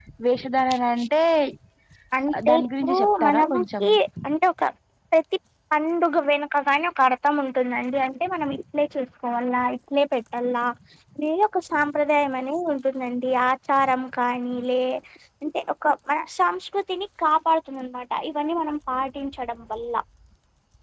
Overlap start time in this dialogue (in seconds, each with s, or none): 2.5 s